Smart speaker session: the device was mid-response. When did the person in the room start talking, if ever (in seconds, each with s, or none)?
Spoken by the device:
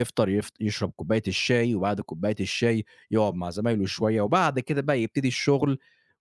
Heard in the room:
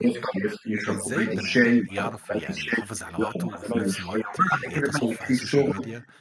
0.8 s